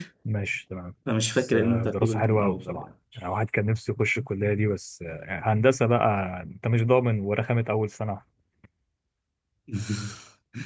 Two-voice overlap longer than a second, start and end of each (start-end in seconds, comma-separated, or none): 1.3-2.9